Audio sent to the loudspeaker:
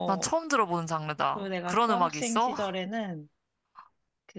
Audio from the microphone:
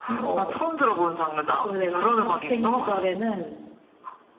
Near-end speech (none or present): none